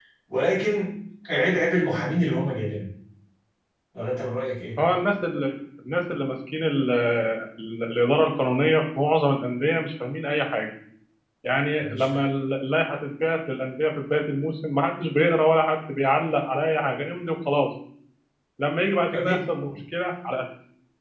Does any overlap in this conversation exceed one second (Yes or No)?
No